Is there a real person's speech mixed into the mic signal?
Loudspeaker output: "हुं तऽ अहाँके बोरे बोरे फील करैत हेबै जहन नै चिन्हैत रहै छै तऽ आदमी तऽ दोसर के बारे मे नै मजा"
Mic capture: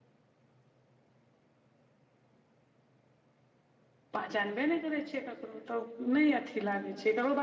Yes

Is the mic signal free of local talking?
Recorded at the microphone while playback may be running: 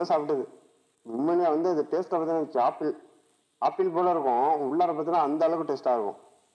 Yes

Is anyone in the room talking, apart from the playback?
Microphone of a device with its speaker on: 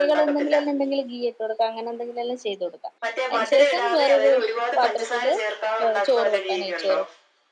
Yes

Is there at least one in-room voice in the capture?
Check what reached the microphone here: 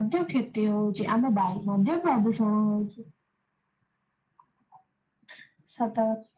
No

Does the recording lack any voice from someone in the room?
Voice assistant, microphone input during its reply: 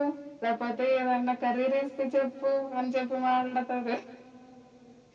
Yes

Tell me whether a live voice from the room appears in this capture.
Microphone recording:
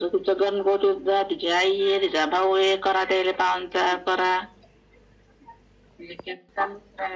No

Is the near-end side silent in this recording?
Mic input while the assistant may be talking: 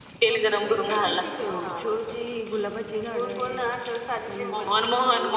No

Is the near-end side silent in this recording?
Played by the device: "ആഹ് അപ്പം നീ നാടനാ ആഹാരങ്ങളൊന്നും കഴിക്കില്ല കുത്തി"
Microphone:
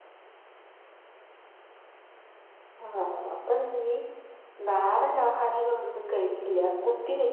Yes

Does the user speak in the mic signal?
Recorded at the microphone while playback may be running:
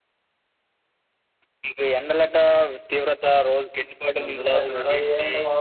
Yes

